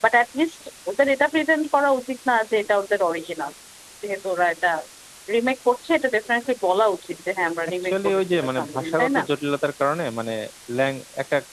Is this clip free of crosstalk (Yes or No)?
No